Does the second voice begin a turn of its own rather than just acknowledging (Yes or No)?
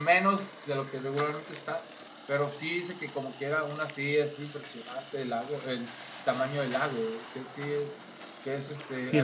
No